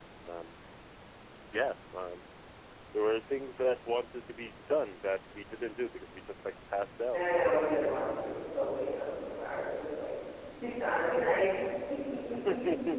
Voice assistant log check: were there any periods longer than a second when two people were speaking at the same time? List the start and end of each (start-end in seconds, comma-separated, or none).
none